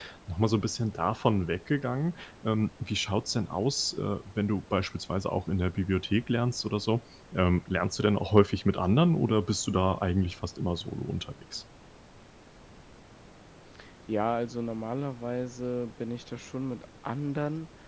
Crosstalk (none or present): none